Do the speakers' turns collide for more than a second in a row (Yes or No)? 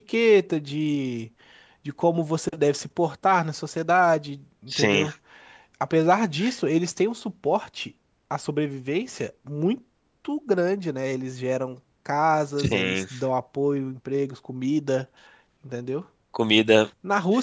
No